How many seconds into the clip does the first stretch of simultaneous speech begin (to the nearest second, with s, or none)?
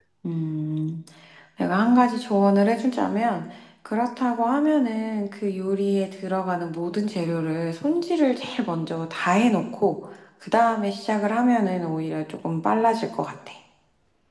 none